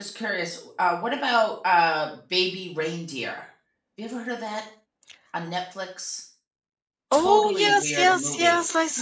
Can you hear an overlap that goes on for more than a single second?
Yes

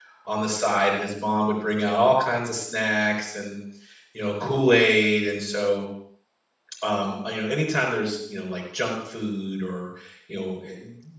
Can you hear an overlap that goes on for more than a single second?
No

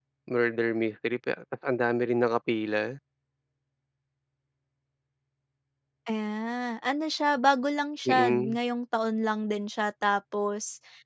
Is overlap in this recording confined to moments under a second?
Yes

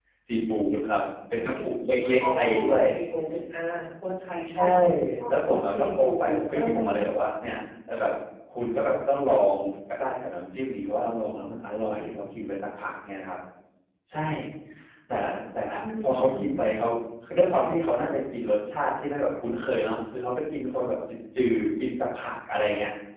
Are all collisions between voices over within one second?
No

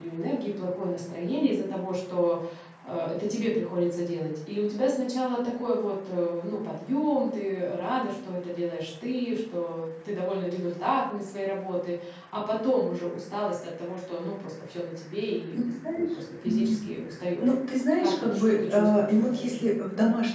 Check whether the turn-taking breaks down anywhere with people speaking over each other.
Yes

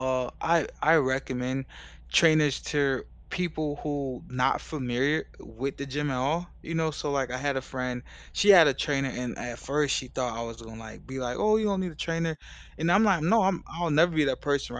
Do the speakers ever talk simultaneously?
No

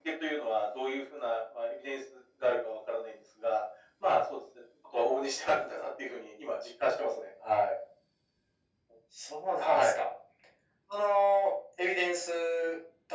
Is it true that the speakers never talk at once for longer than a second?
Yes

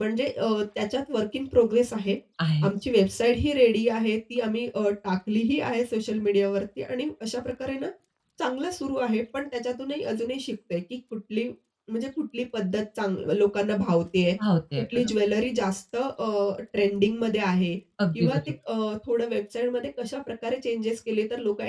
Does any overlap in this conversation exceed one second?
No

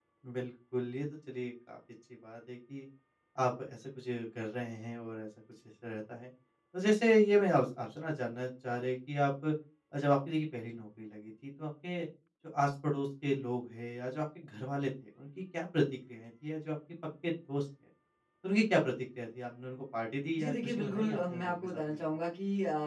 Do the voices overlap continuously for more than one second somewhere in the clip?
Yes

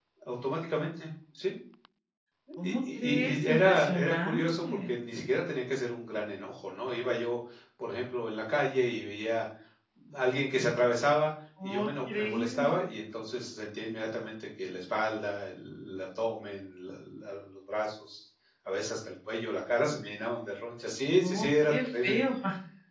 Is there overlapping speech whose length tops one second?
Yes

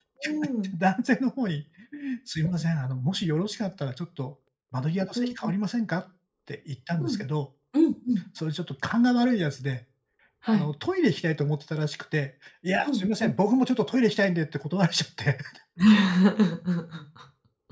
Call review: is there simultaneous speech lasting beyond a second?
No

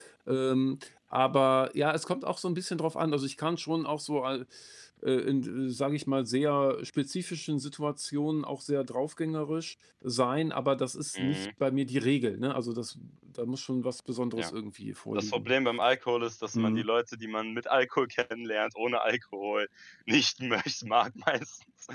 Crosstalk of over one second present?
No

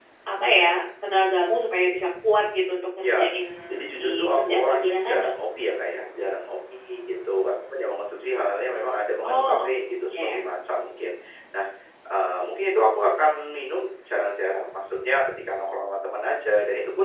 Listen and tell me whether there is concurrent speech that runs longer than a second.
Yes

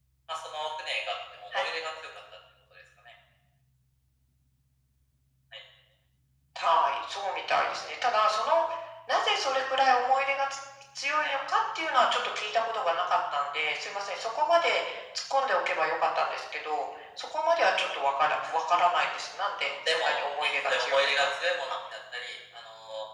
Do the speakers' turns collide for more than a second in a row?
Yes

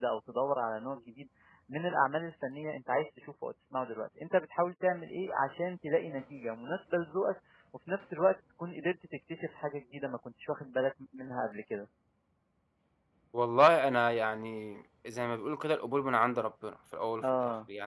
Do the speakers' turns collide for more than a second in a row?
No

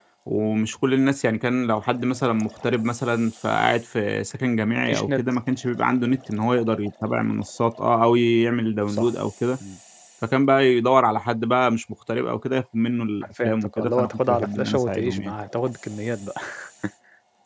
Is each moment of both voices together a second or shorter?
No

